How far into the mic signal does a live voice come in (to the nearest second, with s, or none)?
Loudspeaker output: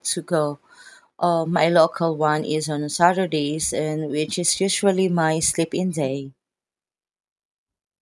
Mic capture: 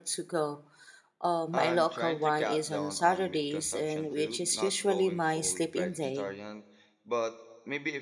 2 s